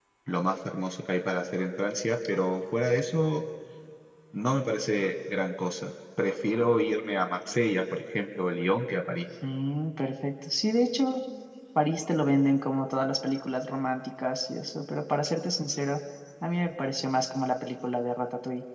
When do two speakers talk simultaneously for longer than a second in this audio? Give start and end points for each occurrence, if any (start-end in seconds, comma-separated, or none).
none